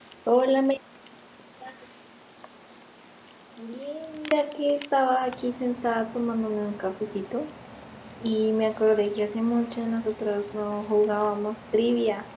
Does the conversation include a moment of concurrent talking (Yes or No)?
No